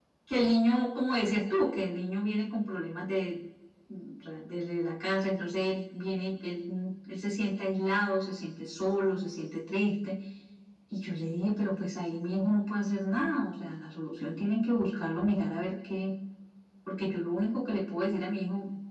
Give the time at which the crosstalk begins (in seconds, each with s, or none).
none